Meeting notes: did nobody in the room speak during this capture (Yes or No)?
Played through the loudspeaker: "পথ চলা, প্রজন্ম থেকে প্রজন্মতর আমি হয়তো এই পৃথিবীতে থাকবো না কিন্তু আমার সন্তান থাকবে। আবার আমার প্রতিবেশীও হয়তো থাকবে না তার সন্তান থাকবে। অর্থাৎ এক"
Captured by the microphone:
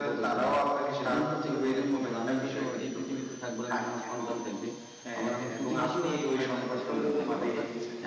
No